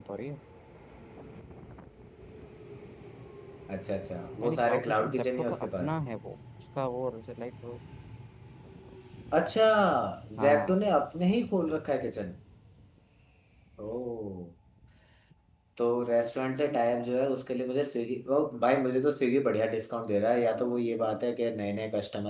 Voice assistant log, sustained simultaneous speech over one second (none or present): present